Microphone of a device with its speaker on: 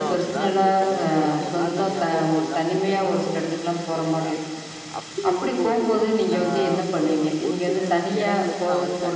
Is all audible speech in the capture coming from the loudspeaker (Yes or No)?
No